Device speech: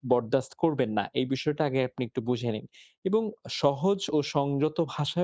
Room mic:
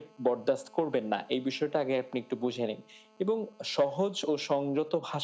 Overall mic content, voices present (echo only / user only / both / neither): echo only